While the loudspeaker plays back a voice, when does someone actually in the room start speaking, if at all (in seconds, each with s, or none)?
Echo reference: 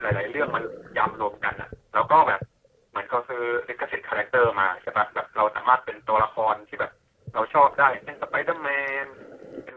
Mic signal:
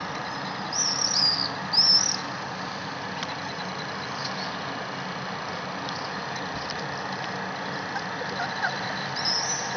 none